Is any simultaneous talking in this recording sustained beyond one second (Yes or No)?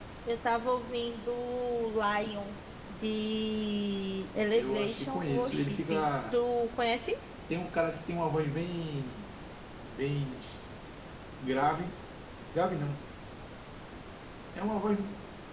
Yes